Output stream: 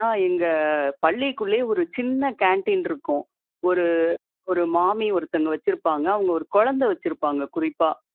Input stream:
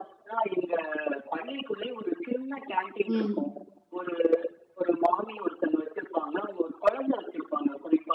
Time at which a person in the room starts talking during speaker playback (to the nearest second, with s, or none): 3 s